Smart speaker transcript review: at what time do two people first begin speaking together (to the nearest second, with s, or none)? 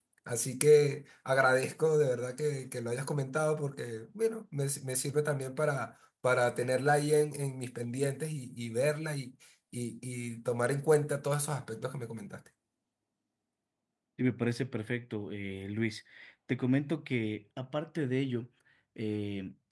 none